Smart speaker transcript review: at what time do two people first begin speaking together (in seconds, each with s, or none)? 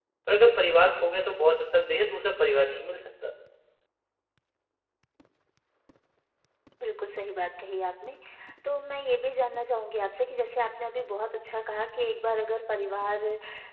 none